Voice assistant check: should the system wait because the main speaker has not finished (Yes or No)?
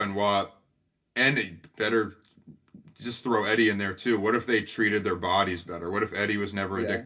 Yes